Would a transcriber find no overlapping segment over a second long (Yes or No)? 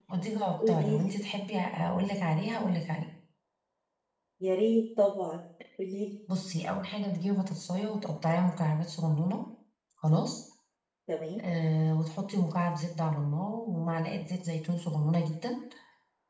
Yes